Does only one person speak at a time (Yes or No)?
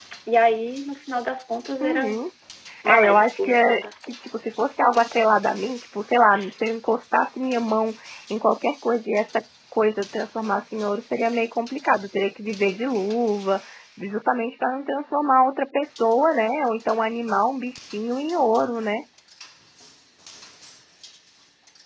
No